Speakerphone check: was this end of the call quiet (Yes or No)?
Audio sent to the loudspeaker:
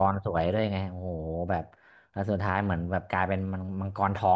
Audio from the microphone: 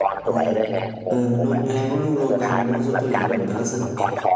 No